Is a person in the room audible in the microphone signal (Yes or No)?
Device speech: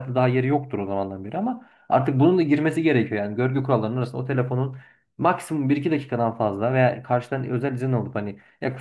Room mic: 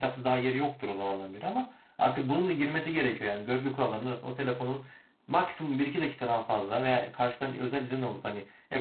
No